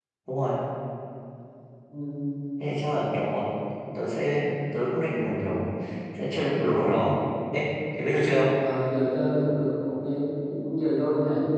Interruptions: none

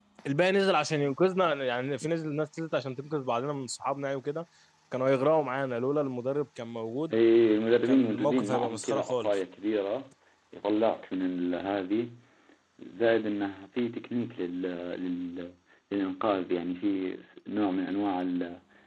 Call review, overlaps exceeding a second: present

